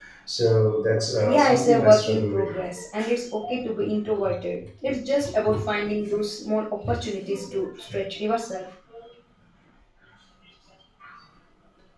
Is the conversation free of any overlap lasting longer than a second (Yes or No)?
No